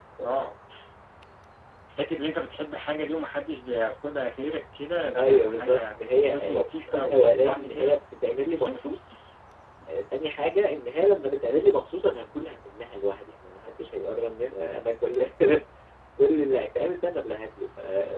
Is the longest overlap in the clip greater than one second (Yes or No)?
Yes